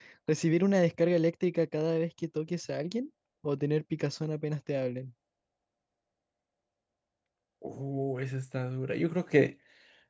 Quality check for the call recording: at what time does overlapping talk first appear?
none

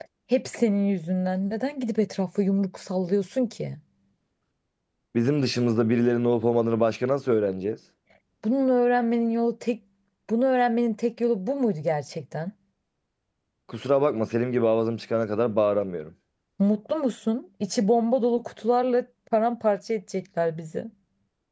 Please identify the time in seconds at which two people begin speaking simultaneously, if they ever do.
none

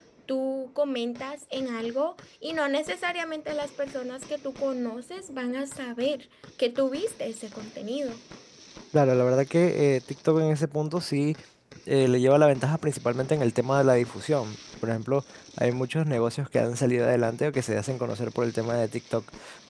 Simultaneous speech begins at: none

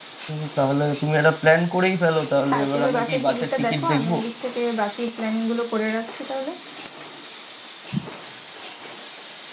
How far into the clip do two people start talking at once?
2.5 s

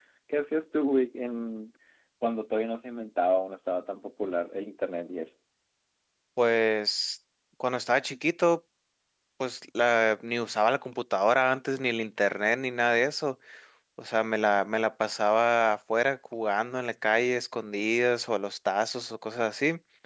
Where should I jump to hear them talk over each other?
none

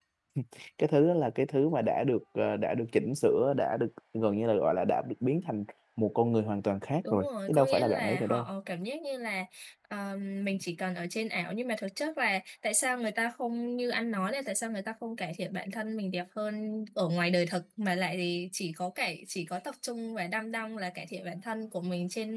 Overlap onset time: 7.0 s

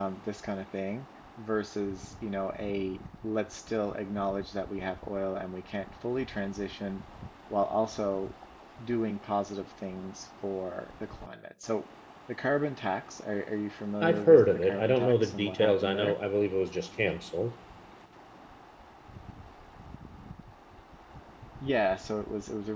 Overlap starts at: 14.0 s

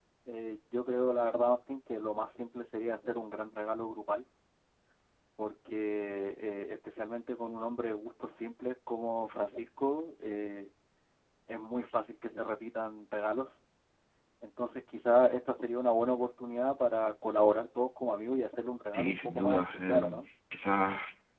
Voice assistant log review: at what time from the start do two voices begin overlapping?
18.9 s

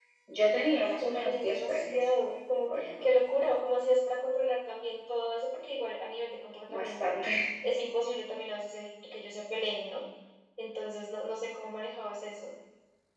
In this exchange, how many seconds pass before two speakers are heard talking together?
0.7 s

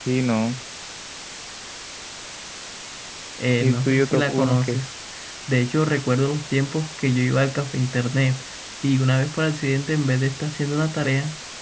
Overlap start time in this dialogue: 3.6 s

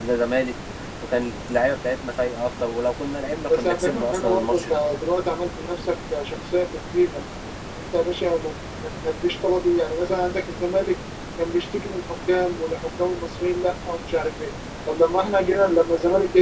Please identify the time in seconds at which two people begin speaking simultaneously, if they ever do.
3.5 s

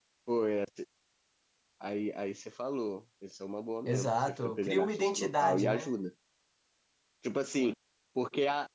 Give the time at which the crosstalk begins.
3.9 s

